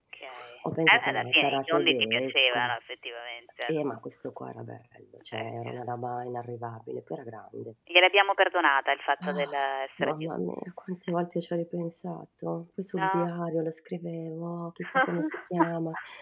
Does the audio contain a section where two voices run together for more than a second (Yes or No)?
Yes